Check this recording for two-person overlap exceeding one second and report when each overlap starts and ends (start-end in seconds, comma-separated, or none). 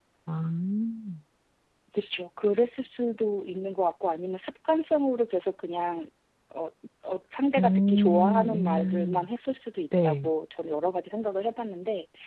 7.6-9.2